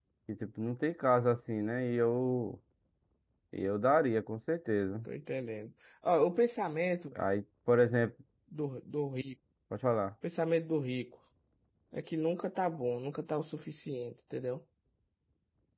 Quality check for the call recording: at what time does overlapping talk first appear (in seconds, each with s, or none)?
none